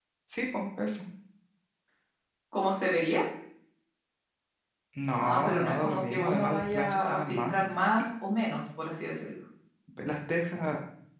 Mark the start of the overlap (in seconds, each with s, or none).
5.2 s